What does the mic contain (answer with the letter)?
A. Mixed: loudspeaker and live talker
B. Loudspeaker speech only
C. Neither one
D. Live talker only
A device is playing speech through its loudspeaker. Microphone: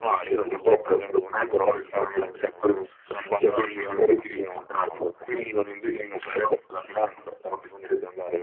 B